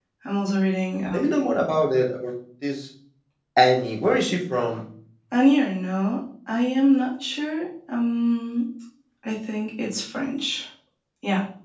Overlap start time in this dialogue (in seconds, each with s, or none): none